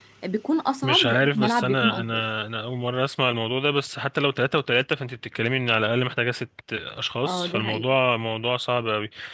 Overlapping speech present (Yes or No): Yes